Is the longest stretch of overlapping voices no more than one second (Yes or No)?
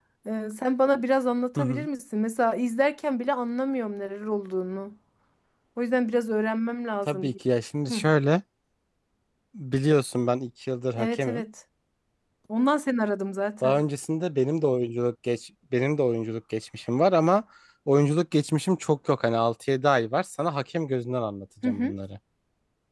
Yes